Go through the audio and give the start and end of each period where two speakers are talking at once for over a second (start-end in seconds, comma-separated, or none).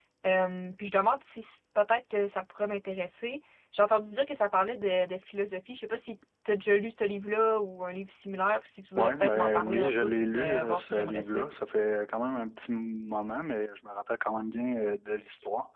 9.0-11.4